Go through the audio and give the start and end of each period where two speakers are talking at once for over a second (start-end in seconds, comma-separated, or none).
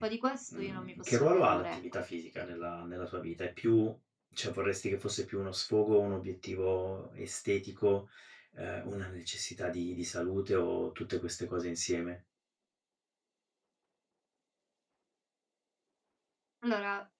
0.6-1.8